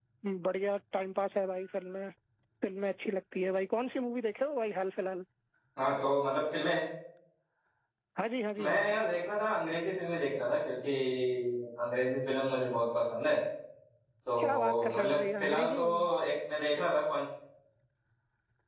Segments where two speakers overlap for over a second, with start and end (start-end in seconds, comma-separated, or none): 14.4-16.1